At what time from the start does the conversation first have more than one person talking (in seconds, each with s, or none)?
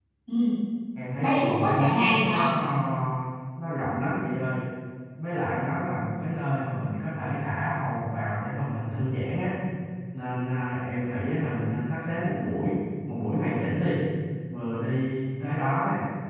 1.2 s